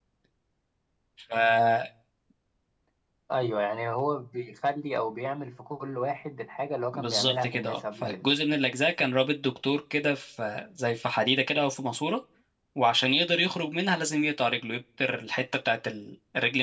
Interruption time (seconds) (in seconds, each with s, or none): 6.9 s